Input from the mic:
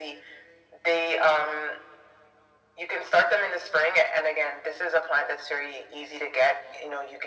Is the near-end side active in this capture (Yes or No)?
No